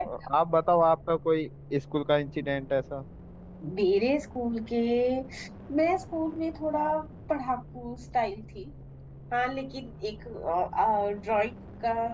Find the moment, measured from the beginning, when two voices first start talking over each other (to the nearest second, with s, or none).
none